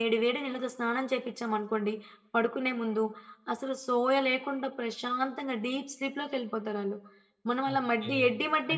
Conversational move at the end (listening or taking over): taking over